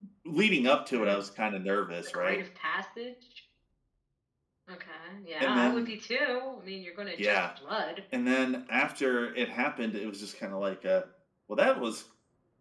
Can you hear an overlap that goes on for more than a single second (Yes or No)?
No